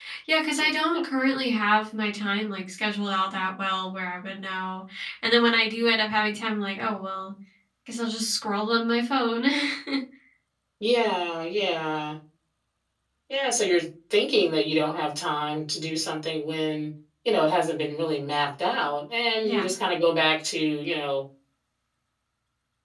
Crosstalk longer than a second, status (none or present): none